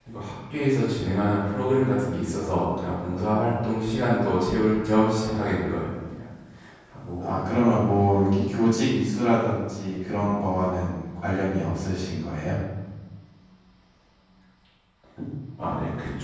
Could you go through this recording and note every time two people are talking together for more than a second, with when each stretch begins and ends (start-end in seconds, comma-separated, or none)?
none